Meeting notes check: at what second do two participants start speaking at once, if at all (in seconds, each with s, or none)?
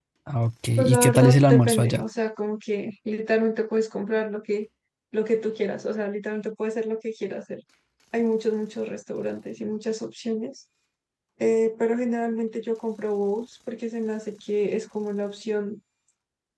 0.8 s